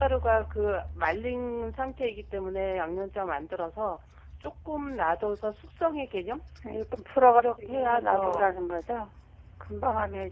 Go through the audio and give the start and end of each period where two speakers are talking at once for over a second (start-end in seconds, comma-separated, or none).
7.4-8.6